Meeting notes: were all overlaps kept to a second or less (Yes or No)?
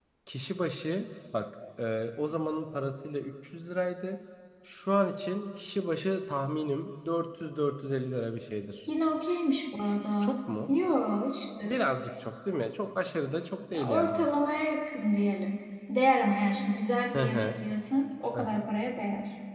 Yes